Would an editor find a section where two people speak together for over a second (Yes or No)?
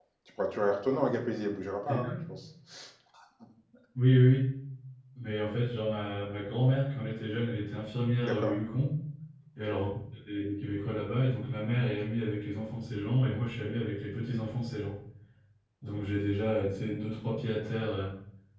No